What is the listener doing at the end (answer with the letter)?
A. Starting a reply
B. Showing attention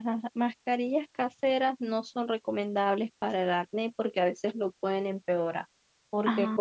B